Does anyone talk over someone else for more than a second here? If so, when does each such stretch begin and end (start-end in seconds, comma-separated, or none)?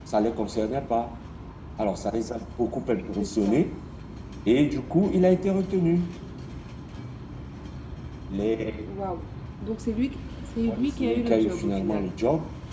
10.7-12.1